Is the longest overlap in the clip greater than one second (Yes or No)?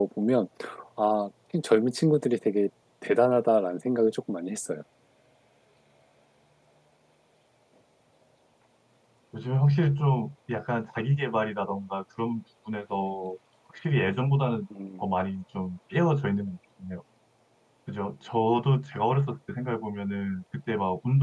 No